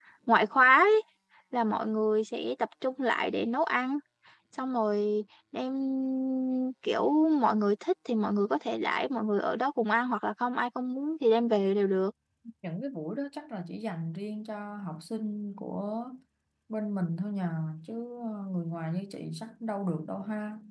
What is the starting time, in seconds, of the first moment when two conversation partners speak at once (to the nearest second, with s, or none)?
none